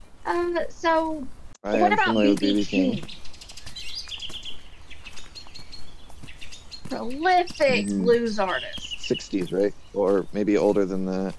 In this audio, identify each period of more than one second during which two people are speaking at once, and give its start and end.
1.7-3.0

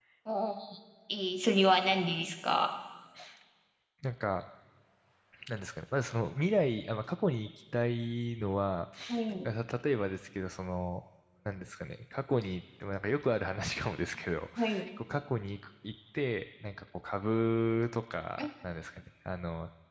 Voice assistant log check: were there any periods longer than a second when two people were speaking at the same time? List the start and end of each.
none

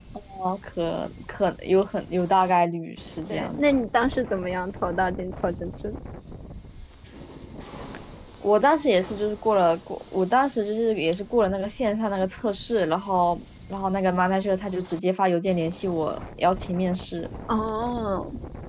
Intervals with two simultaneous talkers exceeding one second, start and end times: none

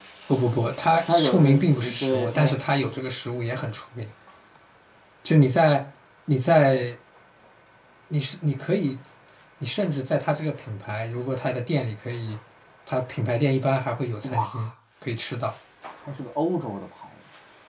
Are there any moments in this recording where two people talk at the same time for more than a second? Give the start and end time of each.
1.1-2.5

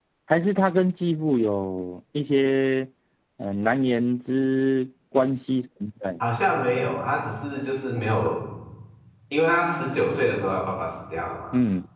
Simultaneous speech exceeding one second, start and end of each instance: none

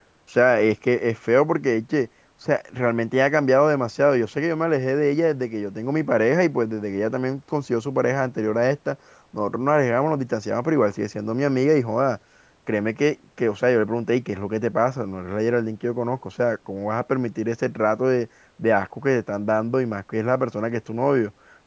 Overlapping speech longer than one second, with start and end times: none

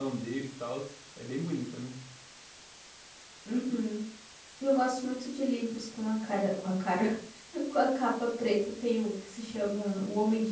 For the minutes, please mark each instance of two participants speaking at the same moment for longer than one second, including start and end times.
none

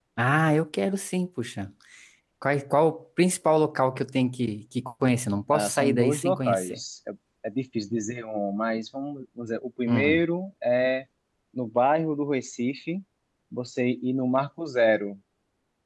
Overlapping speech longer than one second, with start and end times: 5.5-6.8

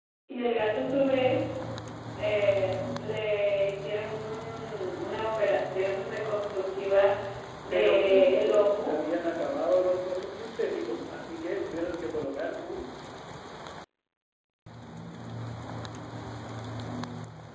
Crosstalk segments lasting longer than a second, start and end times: 7.7-8.9

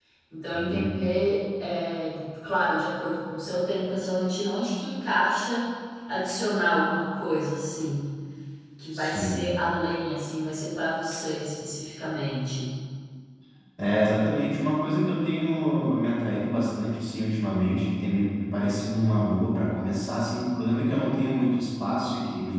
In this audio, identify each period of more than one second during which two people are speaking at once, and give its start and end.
none

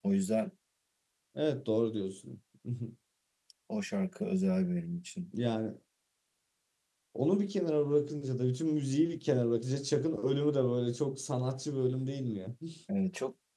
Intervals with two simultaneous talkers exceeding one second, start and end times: none

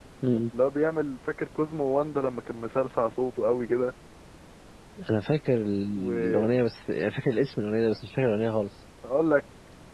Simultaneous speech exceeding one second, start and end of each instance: none

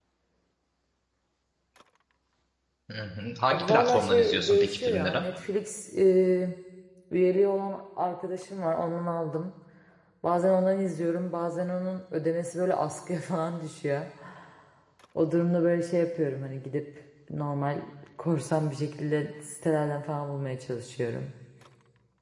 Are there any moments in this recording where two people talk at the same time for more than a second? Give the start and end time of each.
3.5-5.2

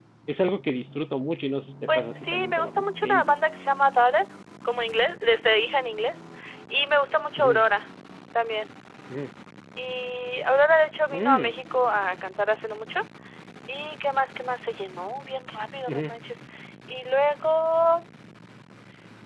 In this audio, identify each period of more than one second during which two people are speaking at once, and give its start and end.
1.9-3.3

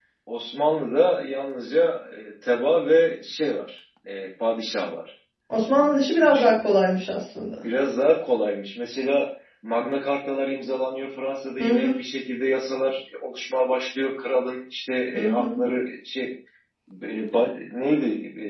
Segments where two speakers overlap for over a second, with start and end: none

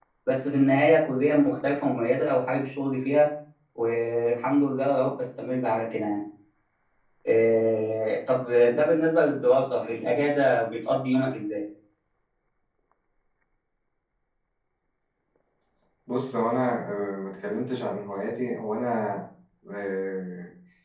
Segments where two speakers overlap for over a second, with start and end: none

